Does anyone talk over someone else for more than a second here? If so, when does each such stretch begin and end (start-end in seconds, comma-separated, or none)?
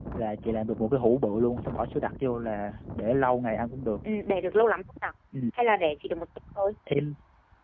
none